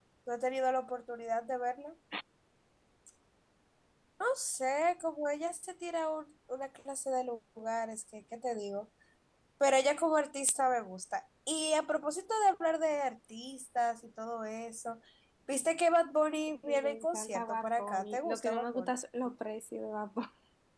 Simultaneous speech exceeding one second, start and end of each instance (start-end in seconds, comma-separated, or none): 16.7-18.9